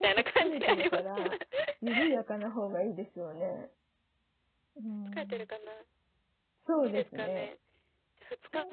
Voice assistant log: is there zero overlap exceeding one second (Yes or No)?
No